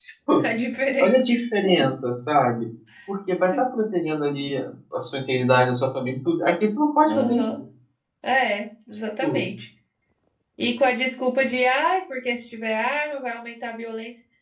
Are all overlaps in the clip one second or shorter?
Yes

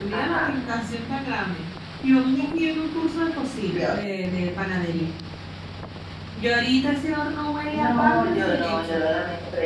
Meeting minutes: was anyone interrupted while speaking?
Yes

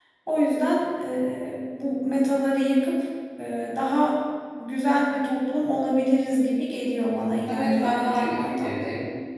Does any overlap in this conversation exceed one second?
Yes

